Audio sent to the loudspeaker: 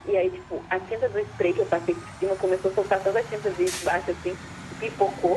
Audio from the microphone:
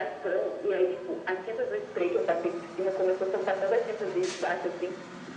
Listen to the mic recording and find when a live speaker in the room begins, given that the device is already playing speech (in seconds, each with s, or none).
none